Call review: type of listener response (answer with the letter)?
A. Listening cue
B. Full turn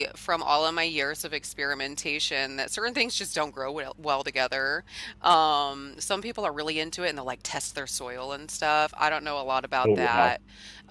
A